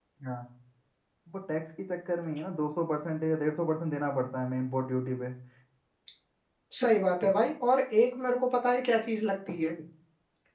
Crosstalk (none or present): none